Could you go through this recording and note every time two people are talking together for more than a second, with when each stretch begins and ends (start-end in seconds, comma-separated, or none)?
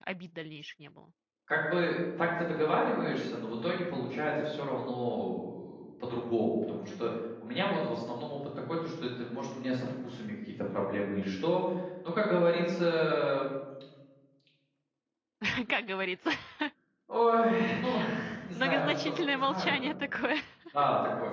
18.5-19.9